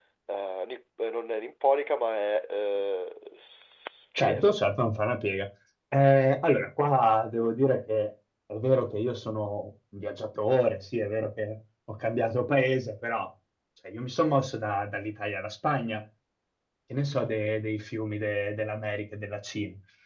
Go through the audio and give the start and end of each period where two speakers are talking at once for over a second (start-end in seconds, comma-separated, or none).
none